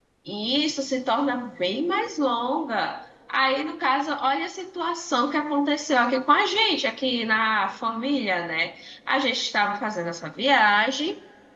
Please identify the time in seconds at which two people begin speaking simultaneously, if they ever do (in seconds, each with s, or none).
none